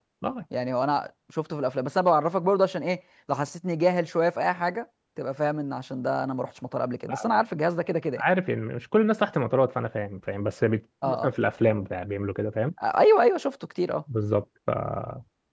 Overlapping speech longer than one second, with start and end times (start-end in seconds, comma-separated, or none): none